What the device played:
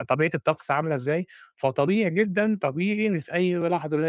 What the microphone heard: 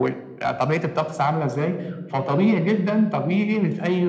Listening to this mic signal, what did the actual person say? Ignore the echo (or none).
none